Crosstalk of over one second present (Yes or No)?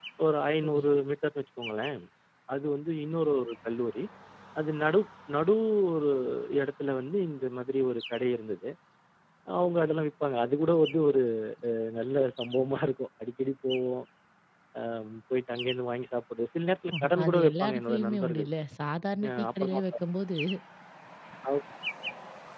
Yes